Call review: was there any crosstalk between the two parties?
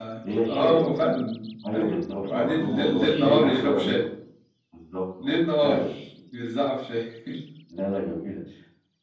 Yes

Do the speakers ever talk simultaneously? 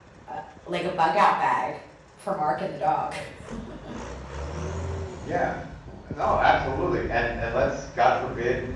No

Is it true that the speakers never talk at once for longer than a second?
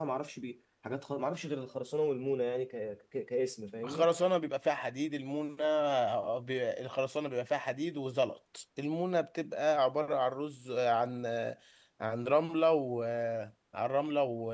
Yes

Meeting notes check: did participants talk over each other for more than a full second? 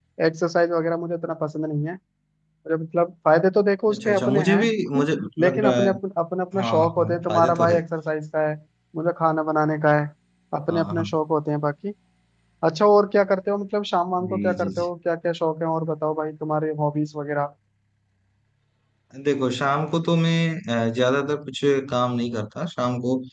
Yes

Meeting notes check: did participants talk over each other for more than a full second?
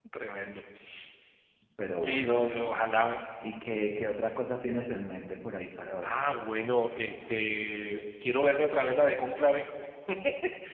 No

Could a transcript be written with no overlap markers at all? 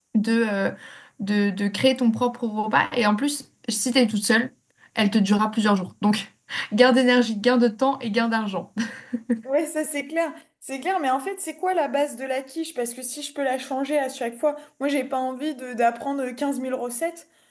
Yes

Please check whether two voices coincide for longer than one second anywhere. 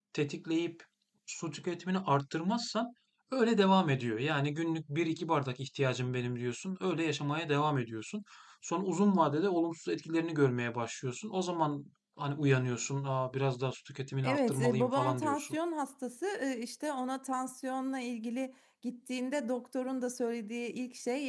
Yes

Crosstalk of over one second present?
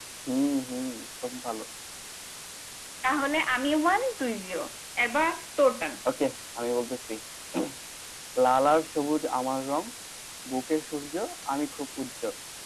No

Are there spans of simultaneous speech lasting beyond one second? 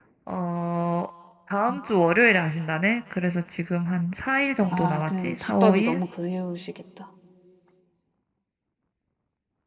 Yes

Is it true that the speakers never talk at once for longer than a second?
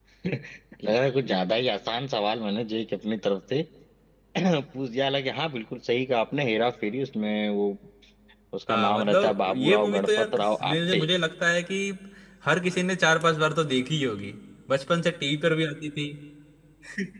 No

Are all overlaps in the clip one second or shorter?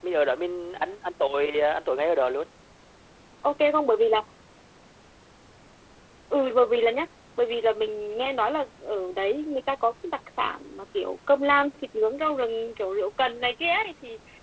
Yes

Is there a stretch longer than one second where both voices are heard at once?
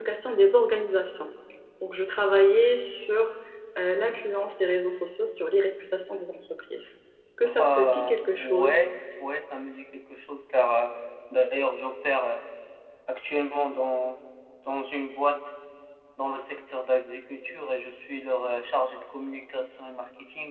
Yes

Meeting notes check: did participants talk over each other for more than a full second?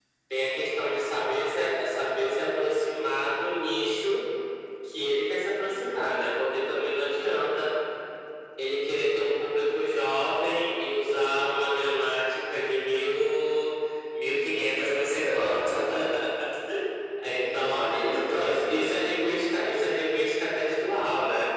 Yes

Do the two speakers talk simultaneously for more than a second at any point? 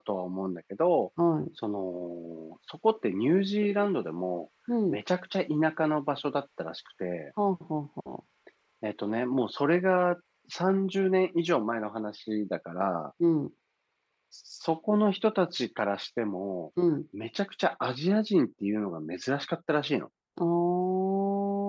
No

